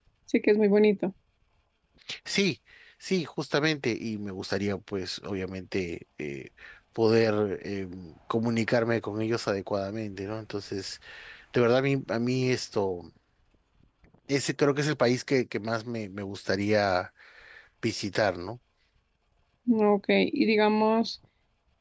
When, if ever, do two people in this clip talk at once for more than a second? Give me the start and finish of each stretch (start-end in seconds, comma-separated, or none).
none